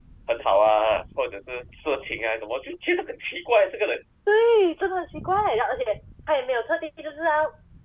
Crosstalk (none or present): none